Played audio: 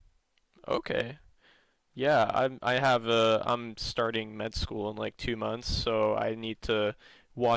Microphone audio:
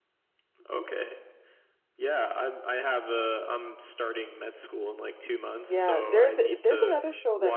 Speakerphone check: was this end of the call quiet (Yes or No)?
No